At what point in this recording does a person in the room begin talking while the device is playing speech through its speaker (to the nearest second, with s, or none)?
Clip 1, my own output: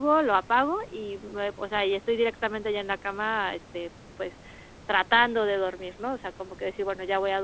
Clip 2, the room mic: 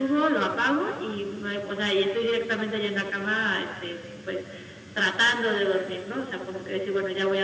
none